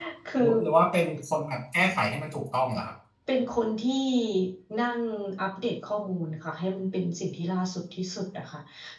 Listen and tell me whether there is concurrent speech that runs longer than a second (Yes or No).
No